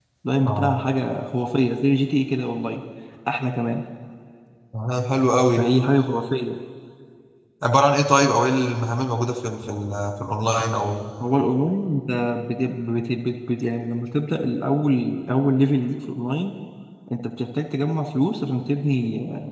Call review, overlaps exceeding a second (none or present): none